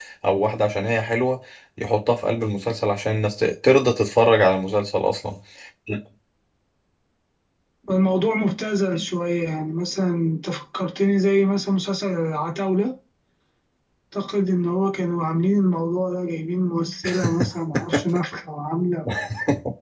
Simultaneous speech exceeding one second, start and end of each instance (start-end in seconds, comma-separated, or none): none